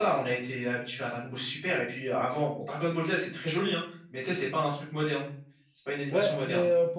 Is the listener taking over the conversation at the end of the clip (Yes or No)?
Yes